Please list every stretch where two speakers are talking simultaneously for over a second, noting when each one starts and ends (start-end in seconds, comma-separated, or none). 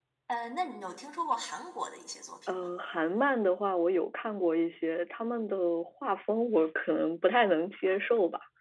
none